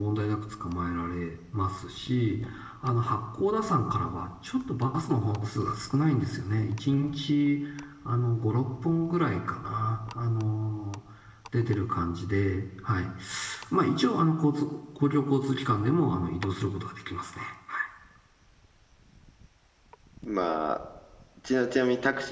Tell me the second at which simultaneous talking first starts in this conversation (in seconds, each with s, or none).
none